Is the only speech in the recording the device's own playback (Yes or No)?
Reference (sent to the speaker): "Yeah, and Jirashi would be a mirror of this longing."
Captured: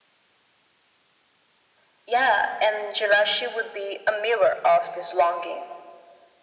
Yes